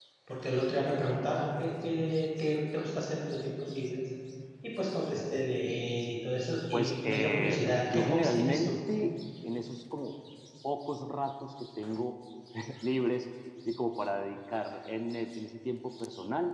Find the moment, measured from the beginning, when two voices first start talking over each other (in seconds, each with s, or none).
6.7 s